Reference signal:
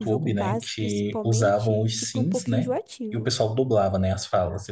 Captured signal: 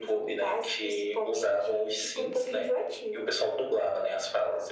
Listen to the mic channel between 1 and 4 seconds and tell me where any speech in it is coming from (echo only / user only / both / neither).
echo only